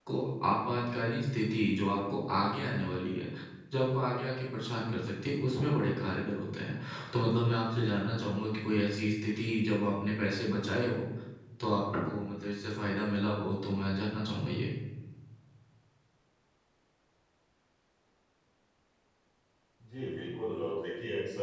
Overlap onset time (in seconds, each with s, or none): none